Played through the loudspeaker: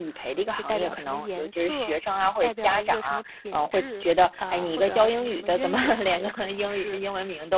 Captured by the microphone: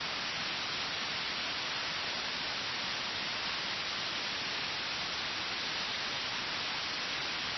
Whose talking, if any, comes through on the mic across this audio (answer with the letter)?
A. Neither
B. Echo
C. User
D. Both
A